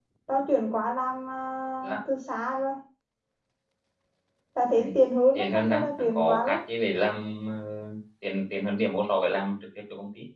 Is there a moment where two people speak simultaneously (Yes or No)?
Yes